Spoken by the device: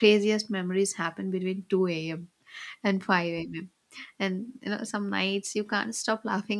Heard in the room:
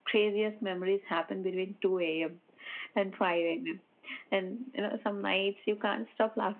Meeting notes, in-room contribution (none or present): none